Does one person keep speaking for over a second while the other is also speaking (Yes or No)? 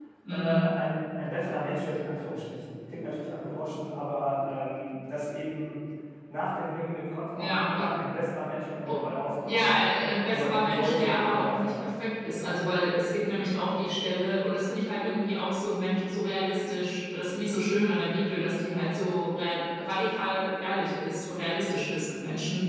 Yes